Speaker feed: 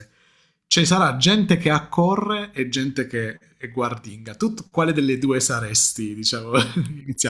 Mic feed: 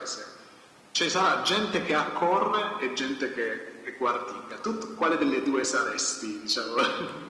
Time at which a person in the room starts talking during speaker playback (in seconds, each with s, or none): none